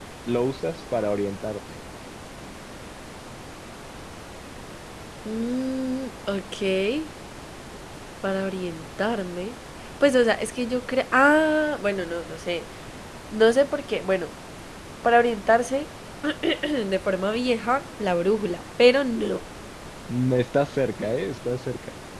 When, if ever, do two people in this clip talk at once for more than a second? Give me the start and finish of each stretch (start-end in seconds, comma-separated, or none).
none